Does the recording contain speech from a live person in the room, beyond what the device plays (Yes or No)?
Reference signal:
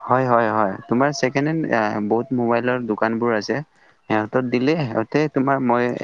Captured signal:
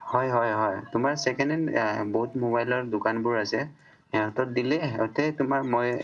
No